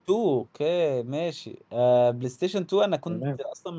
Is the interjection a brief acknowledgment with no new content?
Yes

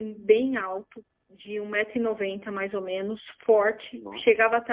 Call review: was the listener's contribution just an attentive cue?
Yes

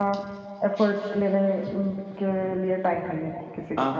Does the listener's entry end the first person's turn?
Yes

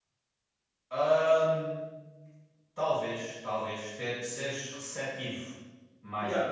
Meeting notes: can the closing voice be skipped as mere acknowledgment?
No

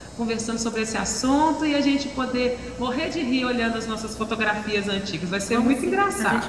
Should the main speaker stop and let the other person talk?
Yes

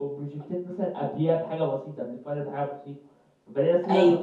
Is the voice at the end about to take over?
No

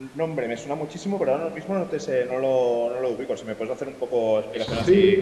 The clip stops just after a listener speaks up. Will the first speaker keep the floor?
No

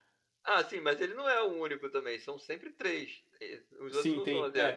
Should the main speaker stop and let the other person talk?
Yes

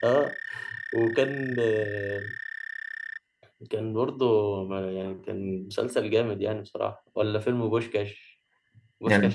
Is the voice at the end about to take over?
No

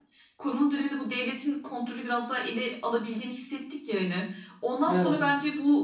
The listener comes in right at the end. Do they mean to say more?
No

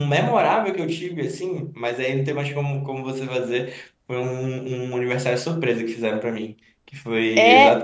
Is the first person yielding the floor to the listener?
No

